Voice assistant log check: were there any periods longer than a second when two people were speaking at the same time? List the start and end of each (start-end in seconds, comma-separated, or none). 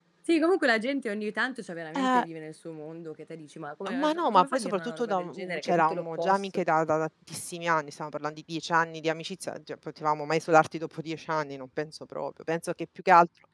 3.9-6.6